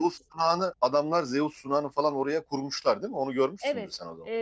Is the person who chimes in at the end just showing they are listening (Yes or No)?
No